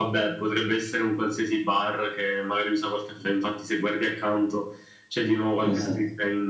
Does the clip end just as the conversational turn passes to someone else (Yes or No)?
No